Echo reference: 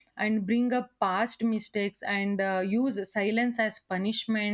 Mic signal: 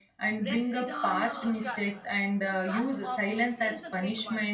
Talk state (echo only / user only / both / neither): both